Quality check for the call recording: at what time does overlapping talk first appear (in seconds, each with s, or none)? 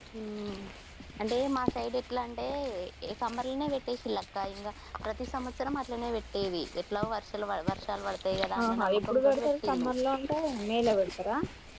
8.6 s